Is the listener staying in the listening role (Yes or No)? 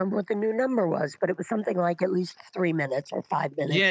No